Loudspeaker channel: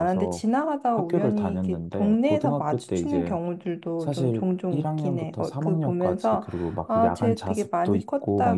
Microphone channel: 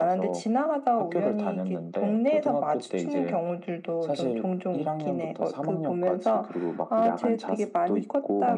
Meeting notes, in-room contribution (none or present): none